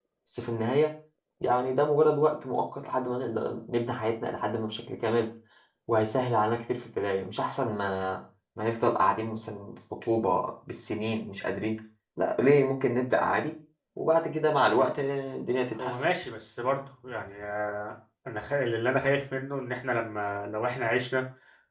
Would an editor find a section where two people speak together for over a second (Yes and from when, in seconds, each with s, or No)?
No